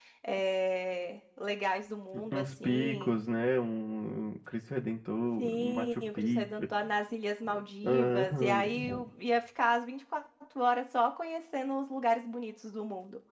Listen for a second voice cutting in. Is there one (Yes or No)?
Yes